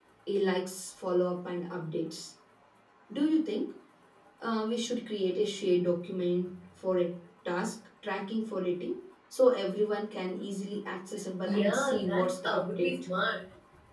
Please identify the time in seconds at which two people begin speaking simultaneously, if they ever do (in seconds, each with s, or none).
11.4 s